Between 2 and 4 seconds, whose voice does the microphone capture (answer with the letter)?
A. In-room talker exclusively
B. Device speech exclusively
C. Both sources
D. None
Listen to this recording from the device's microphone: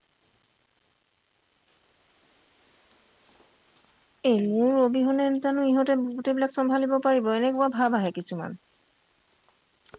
D